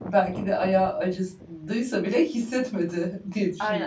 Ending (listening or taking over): taking over